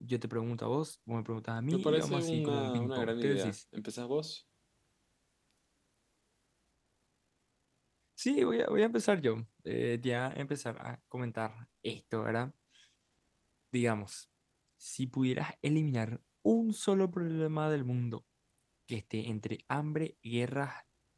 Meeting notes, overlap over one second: present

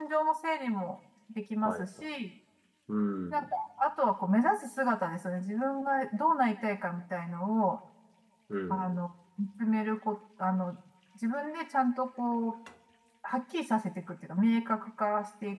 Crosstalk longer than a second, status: none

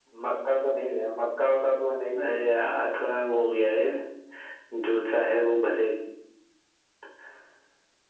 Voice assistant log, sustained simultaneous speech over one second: none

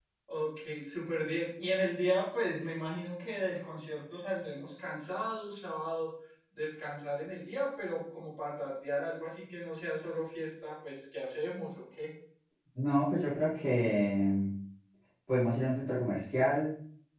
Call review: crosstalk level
none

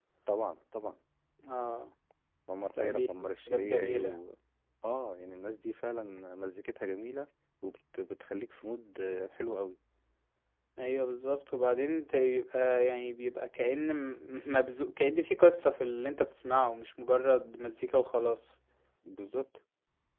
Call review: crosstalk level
present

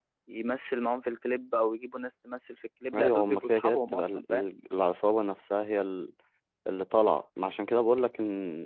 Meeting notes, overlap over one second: present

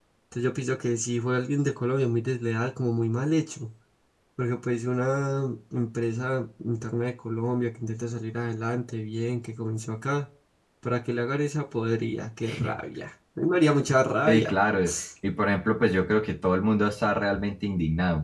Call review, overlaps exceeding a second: none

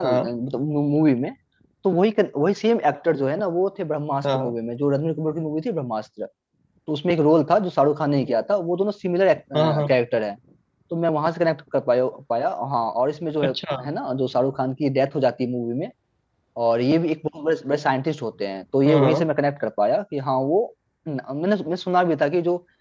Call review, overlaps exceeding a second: none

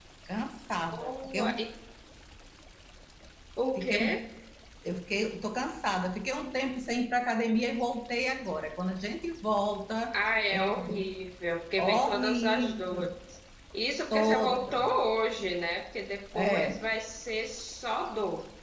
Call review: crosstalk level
present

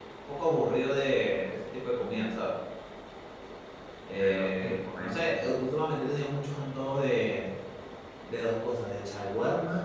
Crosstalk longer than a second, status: present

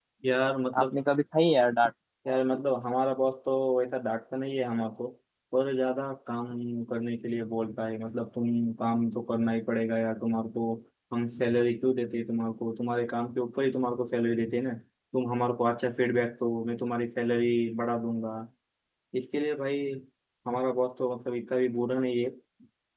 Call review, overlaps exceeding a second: none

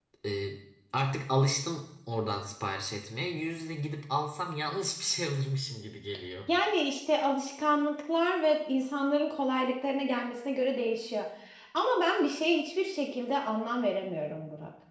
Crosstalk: none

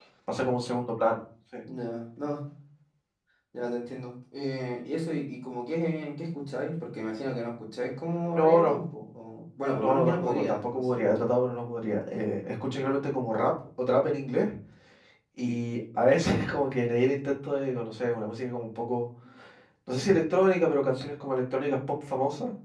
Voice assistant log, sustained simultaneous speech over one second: present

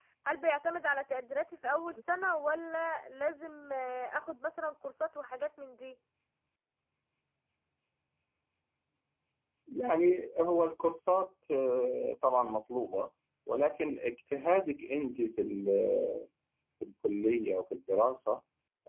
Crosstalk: none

